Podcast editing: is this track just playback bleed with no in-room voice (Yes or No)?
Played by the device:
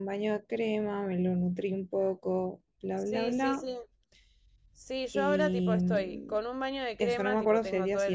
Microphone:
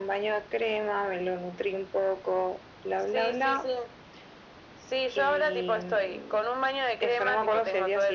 Yes